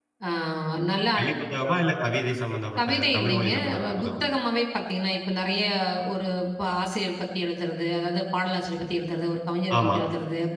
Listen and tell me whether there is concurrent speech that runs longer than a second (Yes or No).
Yes